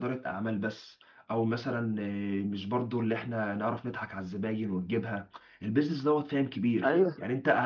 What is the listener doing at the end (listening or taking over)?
listening